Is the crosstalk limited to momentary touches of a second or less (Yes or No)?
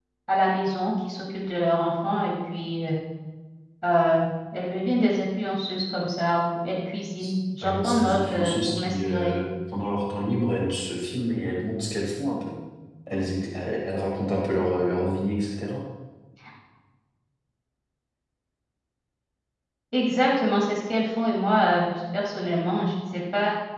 No